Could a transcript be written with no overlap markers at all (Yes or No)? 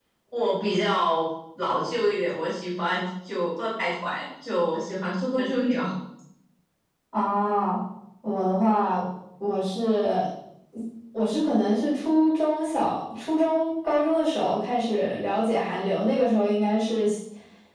Yes